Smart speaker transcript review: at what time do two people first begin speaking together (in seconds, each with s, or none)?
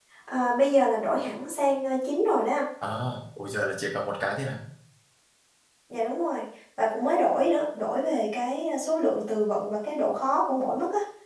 none